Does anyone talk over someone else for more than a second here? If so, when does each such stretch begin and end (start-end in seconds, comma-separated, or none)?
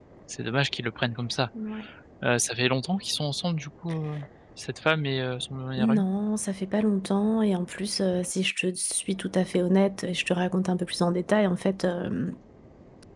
none